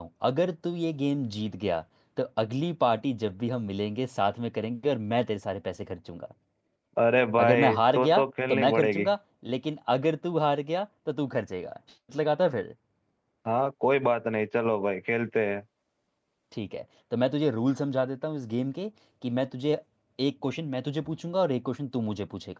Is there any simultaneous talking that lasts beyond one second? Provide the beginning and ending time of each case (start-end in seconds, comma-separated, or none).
7.4-9.0